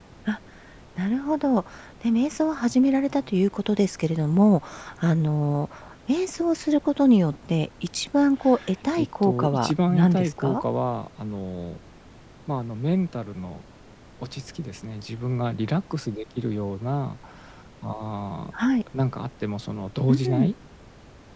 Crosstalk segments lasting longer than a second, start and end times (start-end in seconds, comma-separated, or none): 9.0-10.6